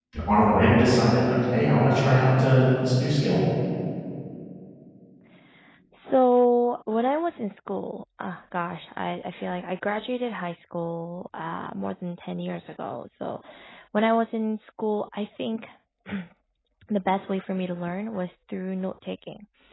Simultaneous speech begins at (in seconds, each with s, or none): none